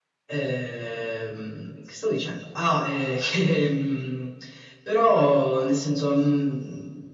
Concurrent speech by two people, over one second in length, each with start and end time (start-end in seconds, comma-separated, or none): none